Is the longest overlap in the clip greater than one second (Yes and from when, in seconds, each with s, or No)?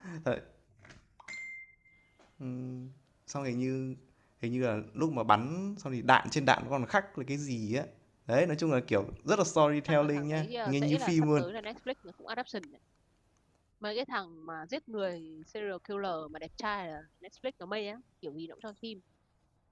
Yes, from 10.0 s